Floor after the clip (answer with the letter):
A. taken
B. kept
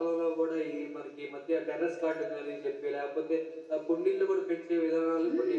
A